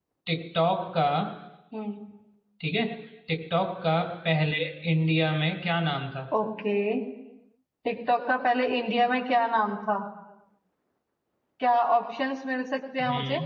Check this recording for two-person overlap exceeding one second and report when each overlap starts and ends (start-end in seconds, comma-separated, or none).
none